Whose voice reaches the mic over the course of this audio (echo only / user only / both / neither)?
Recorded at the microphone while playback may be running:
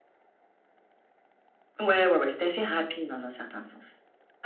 echo only